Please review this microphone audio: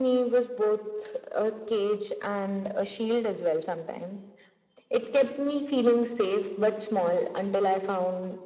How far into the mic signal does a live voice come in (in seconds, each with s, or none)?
none